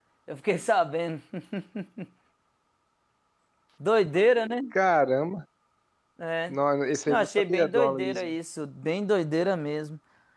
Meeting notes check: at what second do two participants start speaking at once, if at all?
7 s

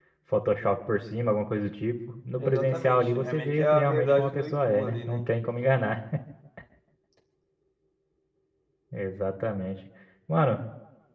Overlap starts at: 2 s

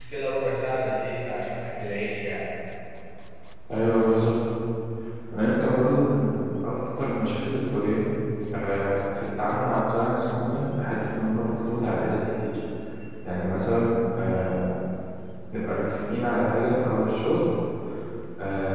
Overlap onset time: none

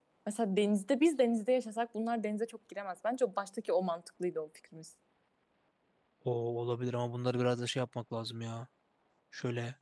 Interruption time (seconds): none

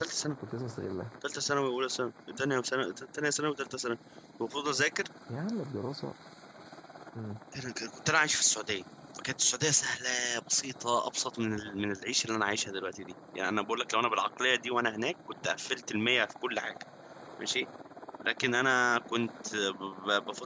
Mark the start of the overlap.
none

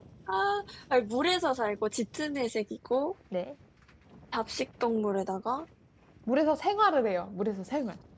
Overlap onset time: none

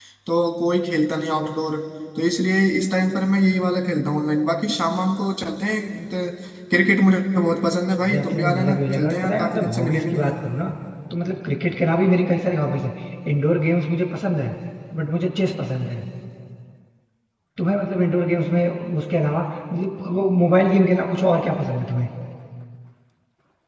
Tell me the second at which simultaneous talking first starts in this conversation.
8 s

